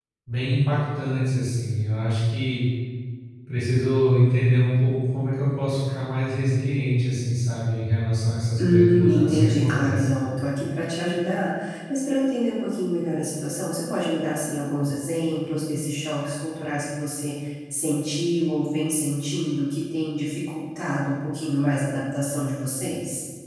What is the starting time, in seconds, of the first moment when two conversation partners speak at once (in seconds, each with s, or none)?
8.6 s